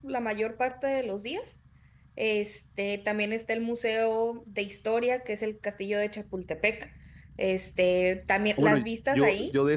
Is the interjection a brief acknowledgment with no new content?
No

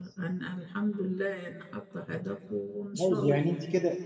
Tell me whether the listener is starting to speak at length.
Yes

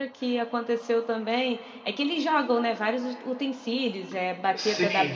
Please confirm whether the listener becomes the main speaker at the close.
No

